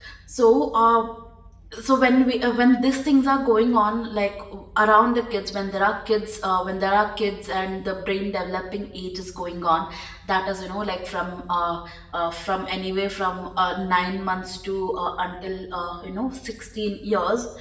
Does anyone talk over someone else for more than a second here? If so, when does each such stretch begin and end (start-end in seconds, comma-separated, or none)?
none